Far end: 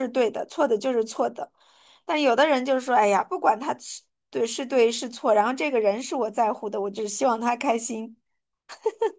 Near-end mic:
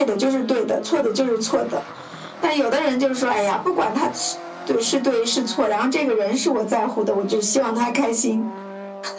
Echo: present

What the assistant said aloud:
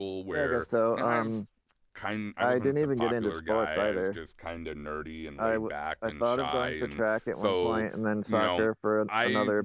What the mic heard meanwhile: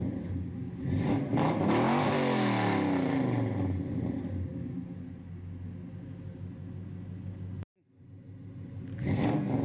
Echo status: none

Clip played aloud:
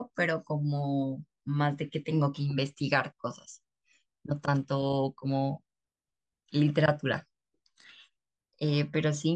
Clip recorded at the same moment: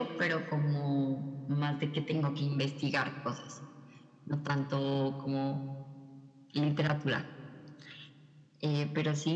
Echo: present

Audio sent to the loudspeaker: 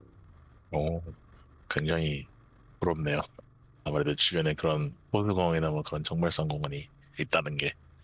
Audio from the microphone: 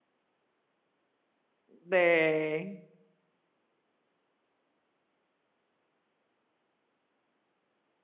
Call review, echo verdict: none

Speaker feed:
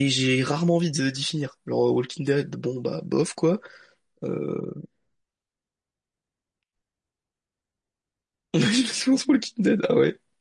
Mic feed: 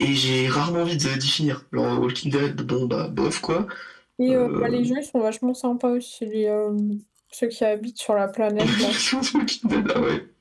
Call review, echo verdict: present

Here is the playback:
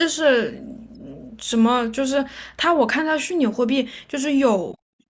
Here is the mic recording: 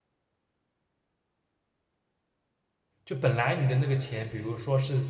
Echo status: none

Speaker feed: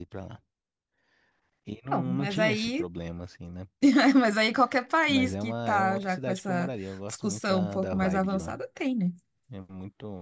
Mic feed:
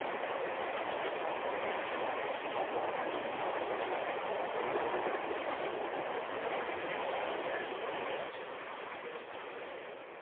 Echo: none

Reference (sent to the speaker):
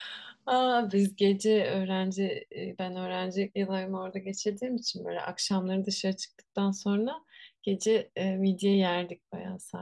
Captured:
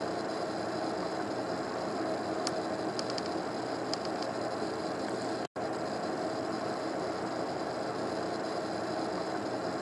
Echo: none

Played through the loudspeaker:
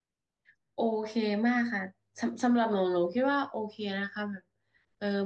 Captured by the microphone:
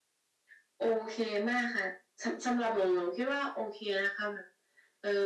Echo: present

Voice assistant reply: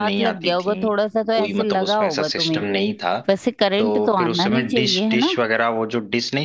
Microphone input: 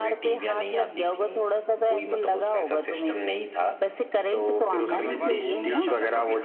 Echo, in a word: present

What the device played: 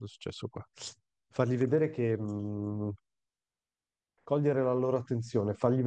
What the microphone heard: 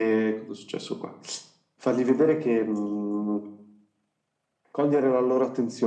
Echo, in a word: present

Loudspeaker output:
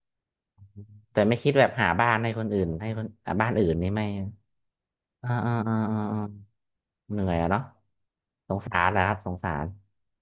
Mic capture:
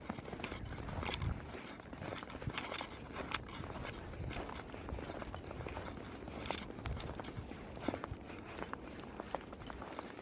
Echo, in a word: none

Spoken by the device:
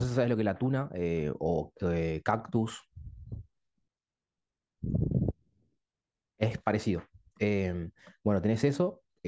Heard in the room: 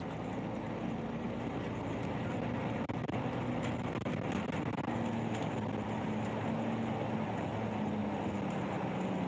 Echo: none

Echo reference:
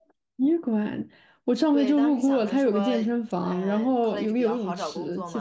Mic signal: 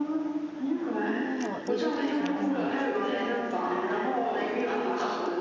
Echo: present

